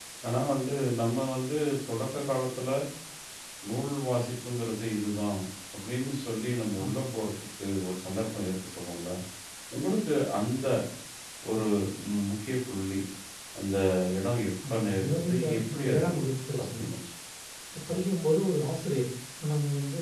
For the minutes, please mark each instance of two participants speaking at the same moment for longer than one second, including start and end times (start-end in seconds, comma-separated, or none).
14.7-16.1